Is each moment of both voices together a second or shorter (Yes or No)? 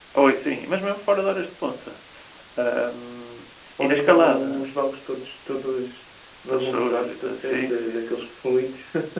No